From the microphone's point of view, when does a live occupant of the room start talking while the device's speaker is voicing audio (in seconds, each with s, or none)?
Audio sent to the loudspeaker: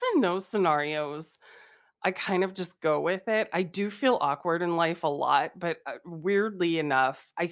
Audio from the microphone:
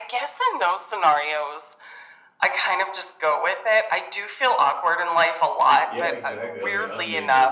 5.8 s